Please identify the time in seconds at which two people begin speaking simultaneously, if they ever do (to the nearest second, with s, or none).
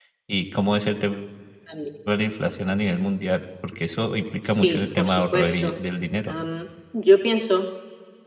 4 s